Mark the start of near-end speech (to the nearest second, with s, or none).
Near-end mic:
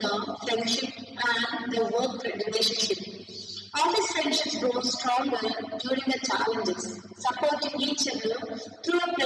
none